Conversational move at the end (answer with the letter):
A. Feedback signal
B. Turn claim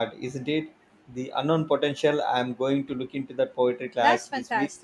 B